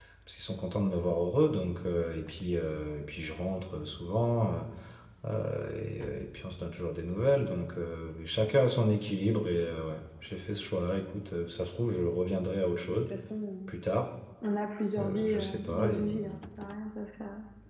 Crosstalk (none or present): present